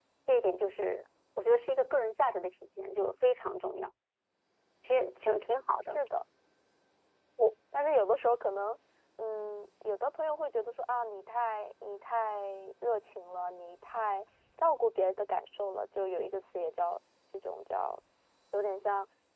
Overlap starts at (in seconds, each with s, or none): none